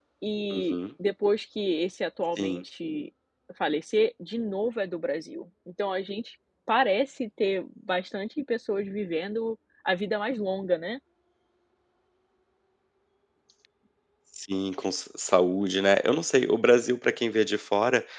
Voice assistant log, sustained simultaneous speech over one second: none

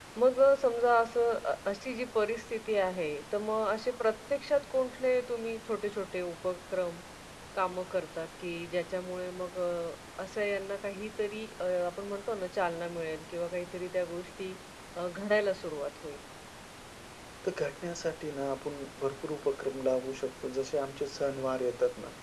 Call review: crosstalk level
none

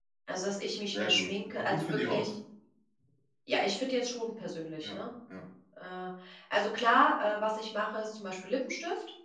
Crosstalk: present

